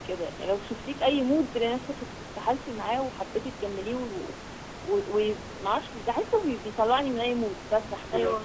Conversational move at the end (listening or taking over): taking over